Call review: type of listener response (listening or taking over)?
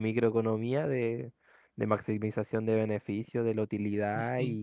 listening